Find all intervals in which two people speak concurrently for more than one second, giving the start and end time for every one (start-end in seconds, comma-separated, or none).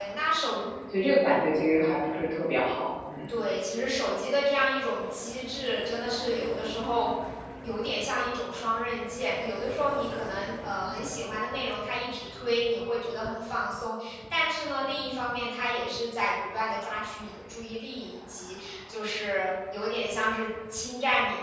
none